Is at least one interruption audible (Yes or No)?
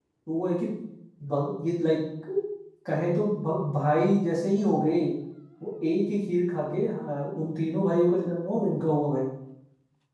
No